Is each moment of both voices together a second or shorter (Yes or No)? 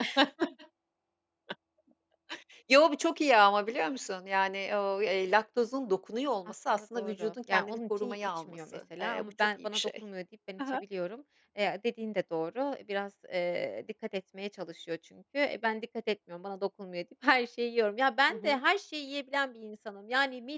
No